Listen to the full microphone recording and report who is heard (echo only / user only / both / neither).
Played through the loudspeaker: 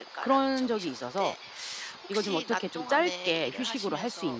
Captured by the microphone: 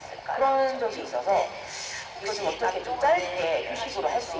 echo only